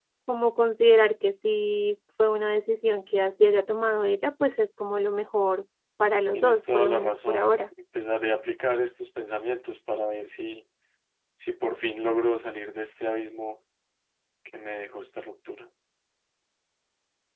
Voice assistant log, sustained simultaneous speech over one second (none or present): present